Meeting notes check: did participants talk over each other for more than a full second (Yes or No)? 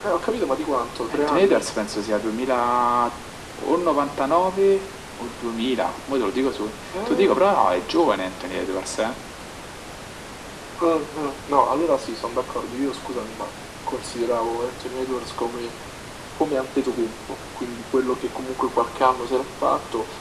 No